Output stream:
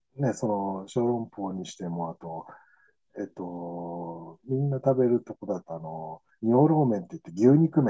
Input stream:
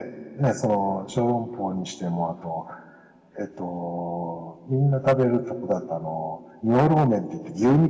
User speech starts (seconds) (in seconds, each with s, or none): none